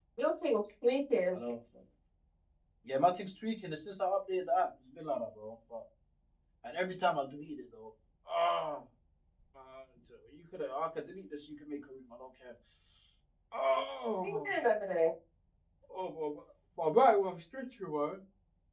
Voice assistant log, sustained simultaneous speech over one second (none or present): none